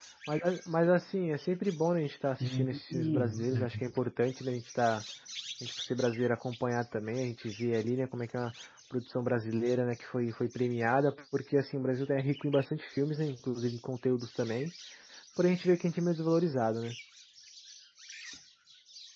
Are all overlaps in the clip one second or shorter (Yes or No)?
No